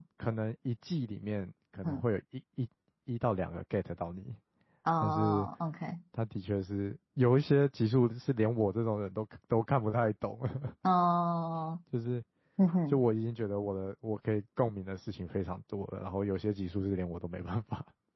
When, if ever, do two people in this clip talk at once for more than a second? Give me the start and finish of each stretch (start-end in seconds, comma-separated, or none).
none